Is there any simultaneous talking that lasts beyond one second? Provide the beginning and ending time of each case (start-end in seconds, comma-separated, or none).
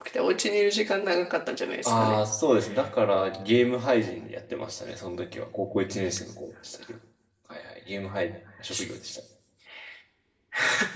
none